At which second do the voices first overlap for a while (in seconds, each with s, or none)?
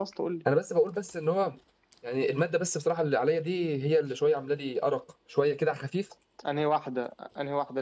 none